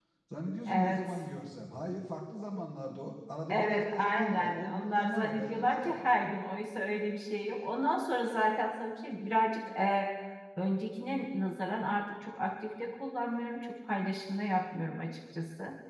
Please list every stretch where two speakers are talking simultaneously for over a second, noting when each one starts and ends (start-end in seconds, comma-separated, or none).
3.5-6.1